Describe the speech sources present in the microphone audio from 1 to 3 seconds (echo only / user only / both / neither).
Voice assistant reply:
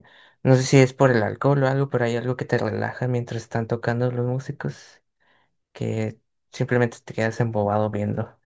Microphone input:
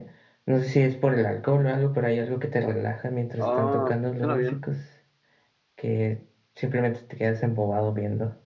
echo only